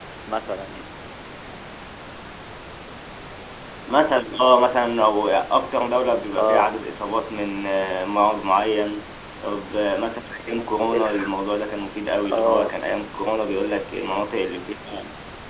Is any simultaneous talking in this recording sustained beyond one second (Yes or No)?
No